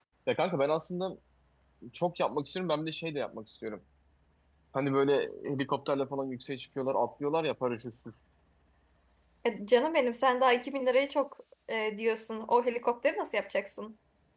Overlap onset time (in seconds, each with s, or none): none